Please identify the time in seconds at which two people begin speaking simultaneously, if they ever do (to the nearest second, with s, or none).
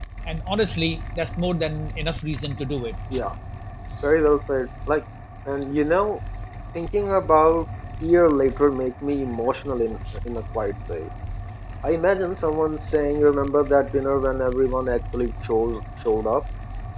none